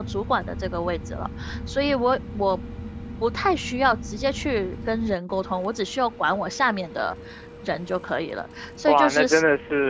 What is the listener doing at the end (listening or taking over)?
taking over